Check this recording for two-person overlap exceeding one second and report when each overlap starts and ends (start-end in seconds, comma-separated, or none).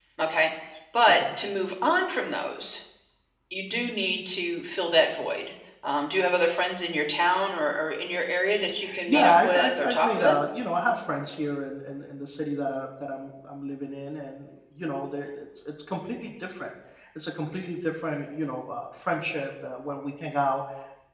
9.1-10.3